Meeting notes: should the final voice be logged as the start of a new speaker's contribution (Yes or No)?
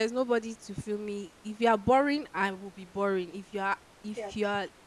No